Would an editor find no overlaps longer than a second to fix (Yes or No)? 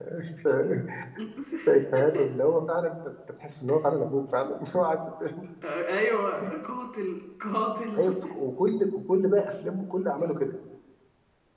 Yes